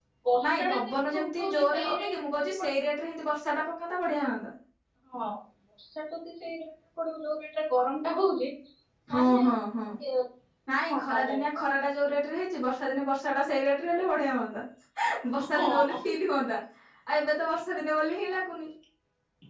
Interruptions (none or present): present